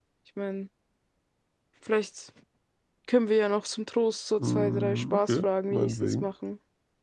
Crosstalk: present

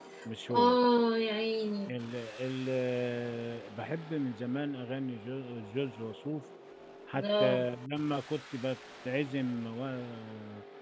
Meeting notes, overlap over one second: none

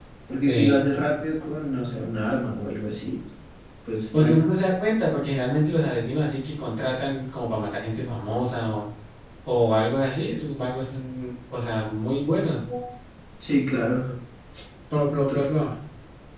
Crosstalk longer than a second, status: none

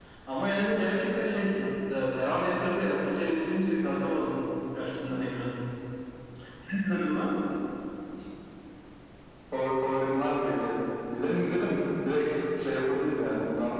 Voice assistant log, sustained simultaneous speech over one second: none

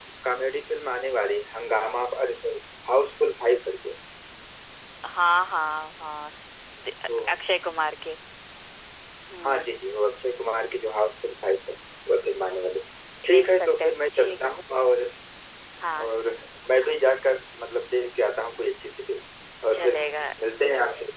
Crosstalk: present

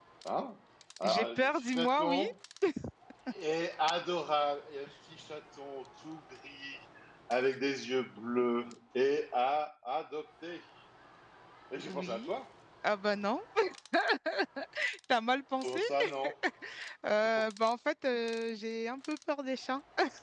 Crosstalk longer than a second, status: present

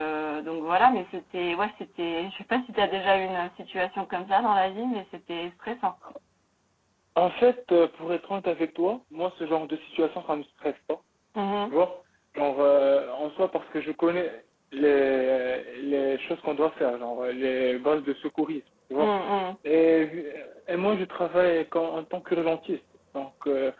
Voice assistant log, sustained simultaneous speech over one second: none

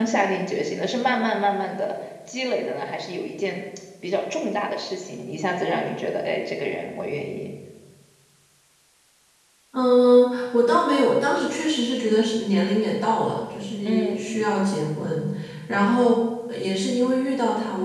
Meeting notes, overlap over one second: none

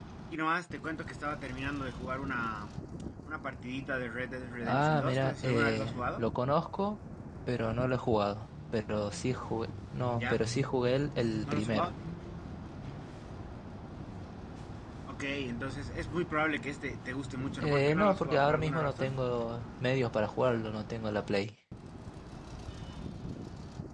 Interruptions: present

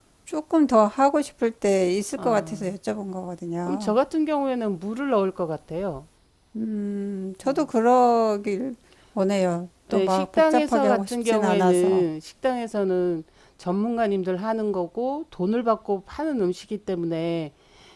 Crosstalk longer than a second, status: present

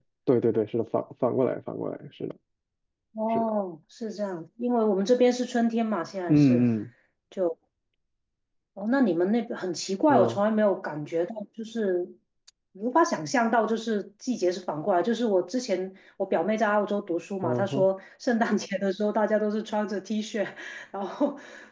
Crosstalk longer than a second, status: none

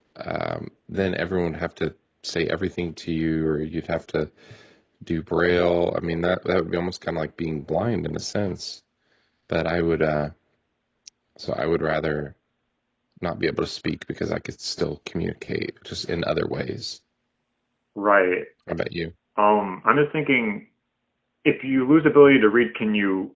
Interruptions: none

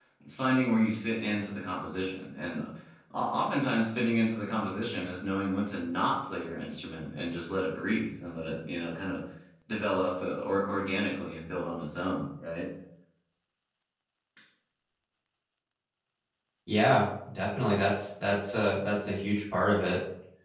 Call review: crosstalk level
none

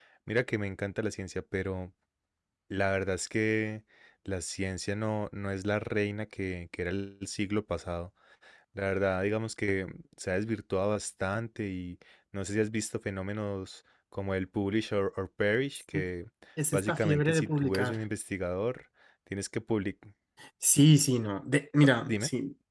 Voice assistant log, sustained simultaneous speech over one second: present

